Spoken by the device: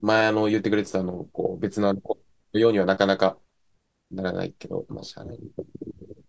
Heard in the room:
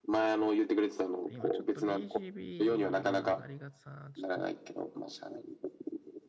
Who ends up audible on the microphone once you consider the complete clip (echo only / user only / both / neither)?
both